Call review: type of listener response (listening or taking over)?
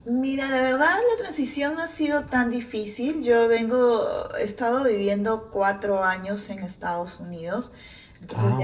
listening